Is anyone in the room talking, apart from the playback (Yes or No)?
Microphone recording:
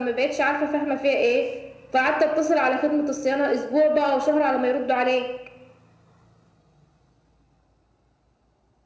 No